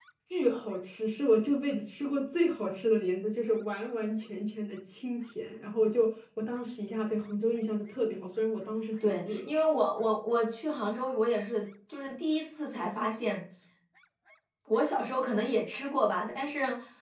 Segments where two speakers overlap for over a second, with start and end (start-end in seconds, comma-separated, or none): none